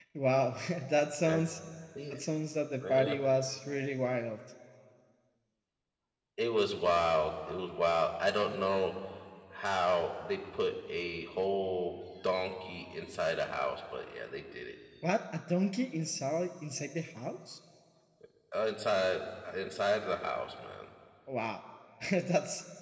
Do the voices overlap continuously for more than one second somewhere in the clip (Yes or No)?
No